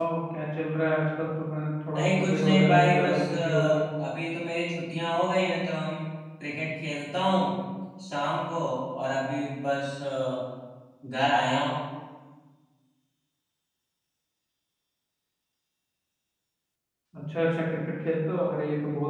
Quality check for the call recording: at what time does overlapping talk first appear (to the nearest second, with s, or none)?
2 s